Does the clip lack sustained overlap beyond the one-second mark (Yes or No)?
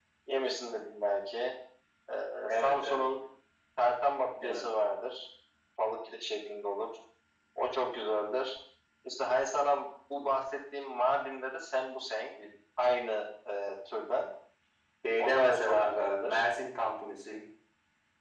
No